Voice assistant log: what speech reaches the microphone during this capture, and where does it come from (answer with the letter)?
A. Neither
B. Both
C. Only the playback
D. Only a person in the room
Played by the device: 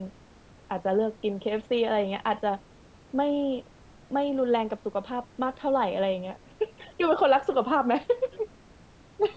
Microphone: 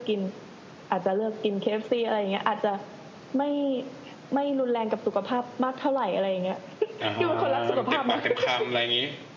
B